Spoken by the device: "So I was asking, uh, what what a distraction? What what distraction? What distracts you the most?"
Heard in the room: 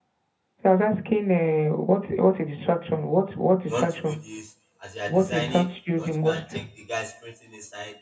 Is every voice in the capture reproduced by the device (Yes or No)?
No